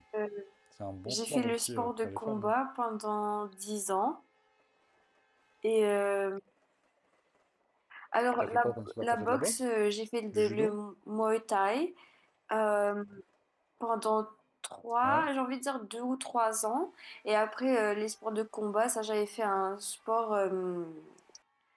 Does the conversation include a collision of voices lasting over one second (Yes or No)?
Yes